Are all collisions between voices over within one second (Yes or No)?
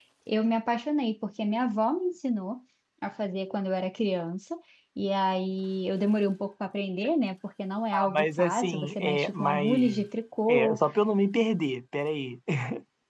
No